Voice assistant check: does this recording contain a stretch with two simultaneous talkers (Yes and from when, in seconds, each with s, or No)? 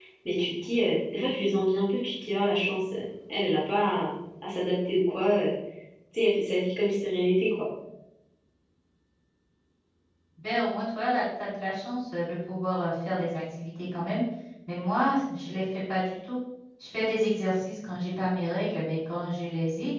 No